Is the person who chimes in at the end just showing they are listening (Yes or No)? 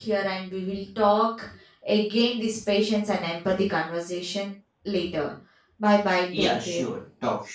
No